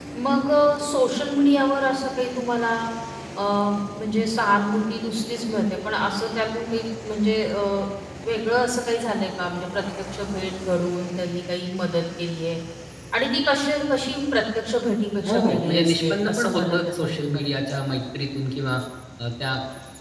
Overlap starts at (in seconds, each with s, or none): 15.2 s